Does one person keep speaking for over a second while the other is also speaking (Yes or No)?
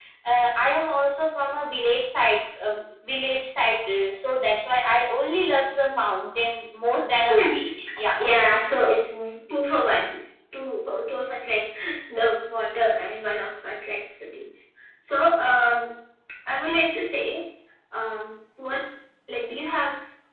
No